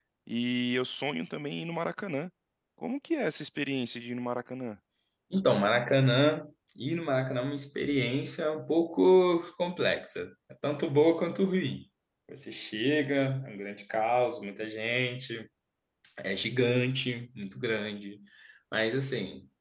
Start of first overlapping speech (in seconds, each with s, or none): none